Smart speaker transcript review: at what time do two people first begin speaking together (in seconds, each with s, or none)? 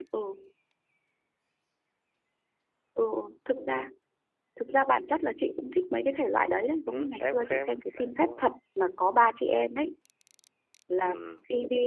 6.9 s